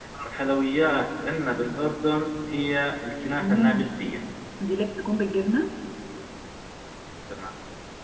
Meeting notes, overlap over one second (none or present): none